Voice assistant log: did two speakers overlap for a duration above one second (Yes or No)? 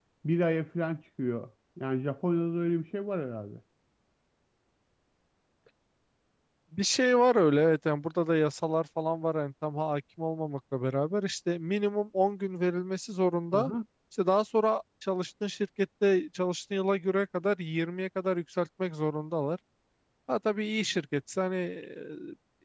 No